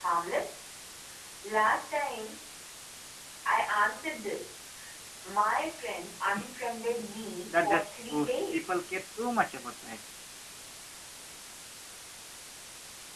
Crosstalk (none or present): present